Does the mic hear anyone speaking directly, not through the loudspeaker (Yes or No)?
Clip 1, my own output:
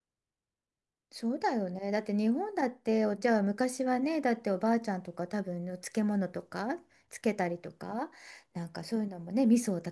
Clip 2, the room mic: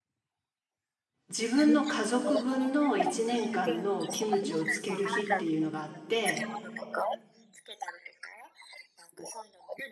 Yes